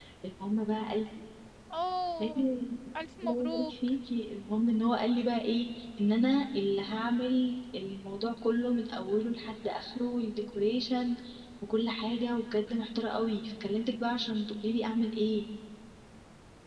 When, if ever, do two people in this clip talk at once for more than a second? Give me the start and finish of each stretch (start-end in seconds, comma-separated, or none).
none